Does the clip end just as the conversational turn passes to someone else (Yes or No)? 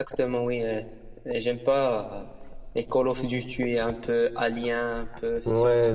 Yes